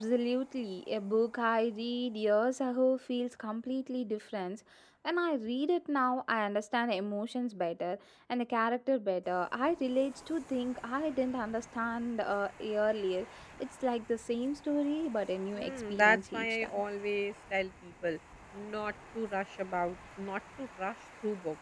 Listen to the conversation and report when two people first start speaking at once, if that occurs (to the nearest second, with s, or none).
16 s